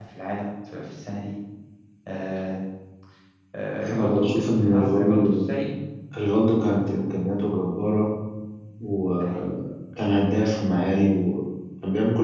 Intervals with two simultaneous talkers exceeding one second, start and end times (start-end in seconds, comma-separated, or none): 3.9-5.5